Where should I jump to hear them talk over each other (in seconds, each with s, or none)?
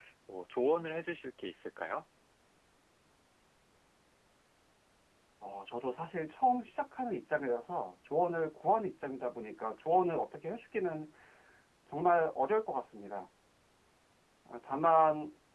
none